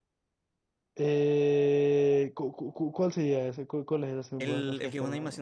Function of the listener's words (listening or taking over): taking over